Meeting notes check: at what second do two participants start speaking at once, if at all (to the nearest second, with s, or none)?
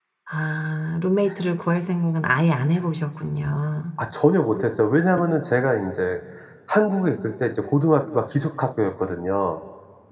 none